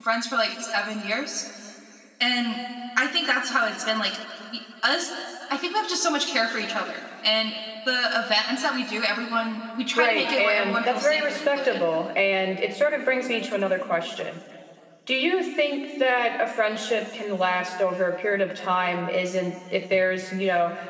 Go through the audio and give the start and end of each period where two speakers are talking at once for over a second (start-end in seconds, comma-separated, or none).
10.0-11.8